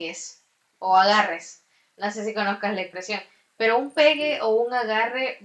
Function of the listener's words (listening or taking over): listening